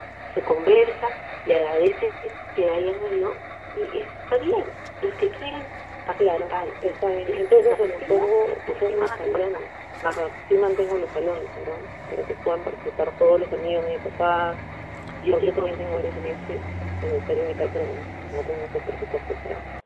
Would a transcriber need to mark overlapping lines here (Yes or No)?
Yes